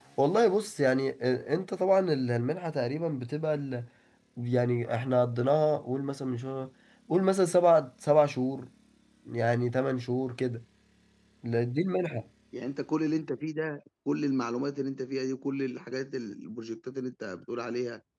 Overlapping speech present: No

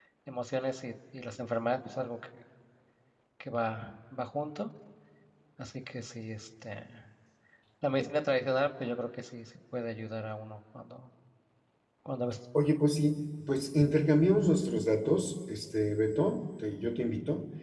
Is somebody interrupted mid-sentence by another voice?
No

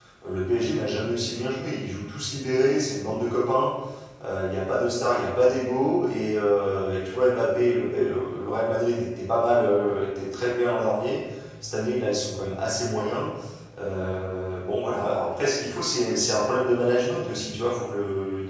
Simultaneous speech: No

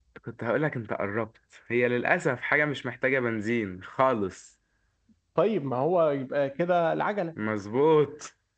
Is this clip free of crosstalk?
Yes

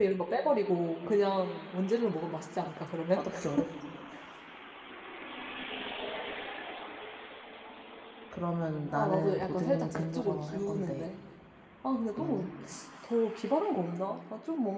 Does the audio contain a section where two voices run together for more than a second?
Yes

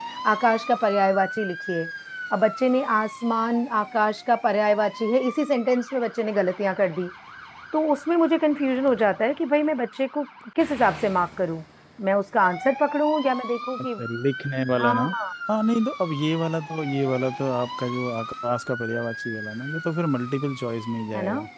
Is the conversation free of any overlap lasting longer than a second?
Yes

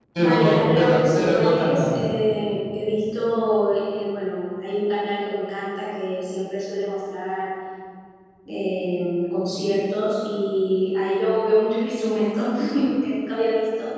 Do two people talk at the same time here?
Yes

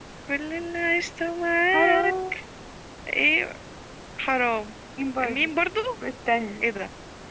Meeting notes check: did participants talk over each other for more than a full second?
No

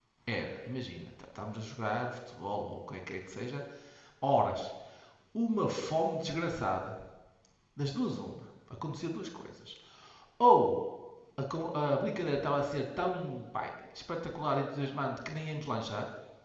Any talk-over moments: No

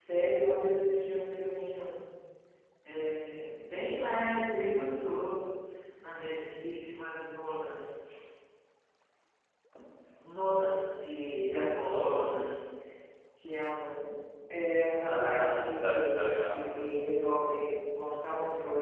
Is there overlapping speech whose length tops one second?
Yes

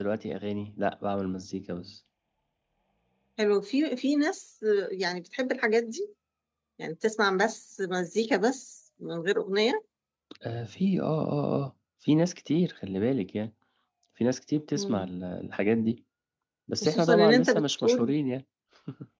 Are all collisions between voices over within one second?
No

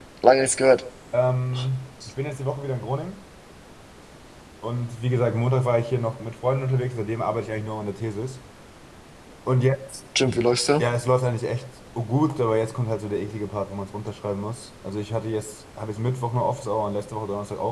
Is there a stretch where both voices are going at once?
No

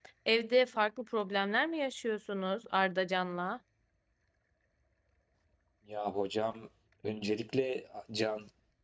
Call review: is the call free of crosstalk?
Yes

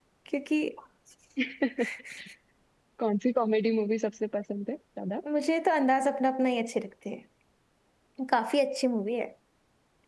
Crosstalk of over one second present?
No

